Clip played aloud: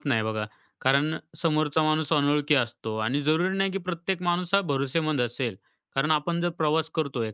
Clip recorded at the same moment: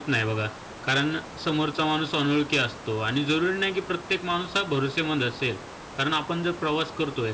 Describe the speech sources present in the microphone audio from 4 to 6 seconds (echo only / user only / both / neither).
echo only